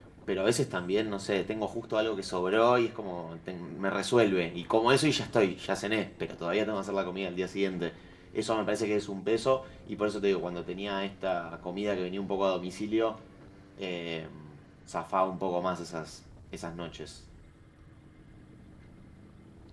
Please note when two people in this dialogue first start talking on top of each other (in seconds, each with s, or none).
none